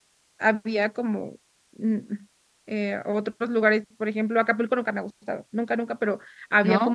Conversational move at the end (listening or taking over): listening